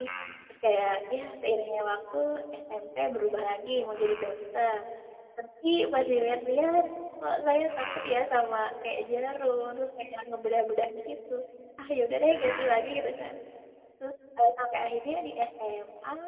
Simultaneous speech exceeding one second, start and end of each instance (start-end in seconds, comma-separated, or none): none